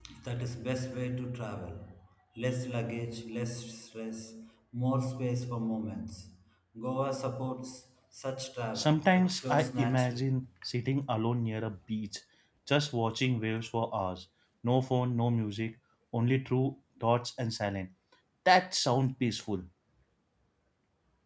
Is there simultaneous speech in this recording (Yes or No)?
Yes